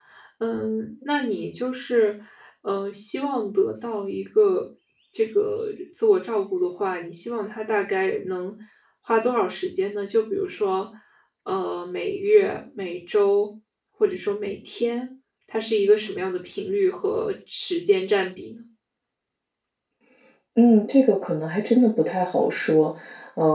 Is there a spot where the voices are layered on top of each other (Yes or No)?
No